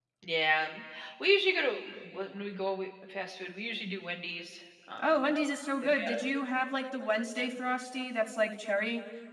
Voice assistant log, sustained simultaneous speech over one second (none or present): none